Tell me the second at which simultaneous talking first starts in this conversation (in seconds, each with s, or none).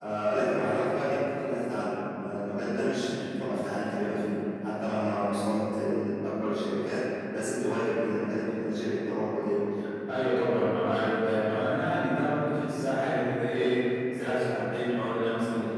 none